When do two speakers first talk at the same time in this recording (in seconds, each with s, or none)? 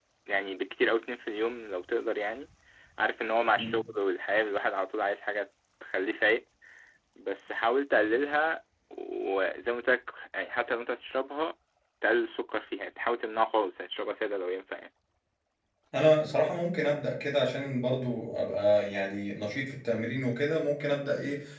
none